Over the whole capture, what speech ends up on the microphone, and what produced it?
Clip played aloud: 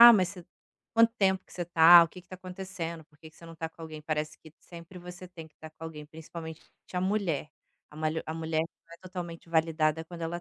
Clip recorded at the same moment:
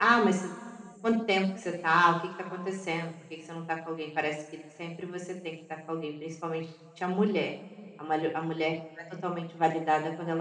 echo only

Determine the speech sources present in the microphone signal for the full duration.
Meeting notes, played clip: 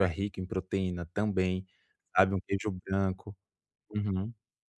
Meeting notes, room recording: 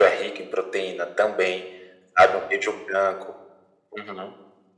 echo only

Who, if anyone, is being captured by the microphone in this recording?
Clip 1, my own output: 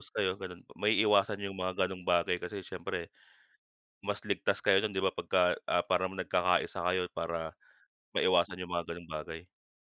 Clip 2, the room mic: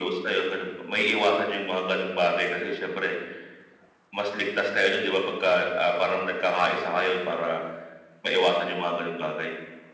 echo only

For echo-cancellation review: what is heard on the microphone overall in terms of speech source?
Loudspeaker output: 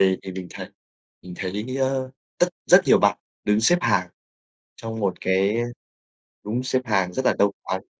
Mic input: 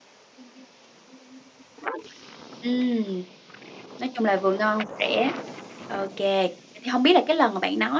user only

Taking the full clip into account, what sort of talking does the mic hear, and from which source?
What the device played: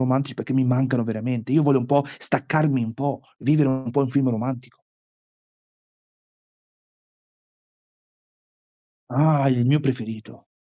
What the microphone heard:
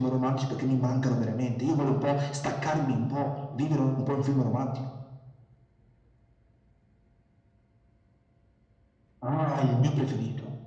echo only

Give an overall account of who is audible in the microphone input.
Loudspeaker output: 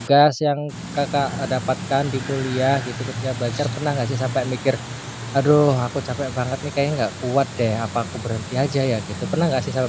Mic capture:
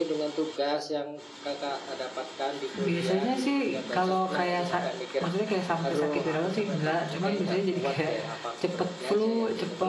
both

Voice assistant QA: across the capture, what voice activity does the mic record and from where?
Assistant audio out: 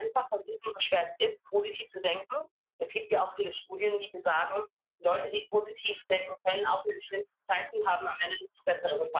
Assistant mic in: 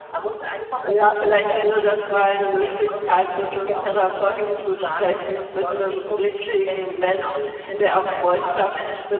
both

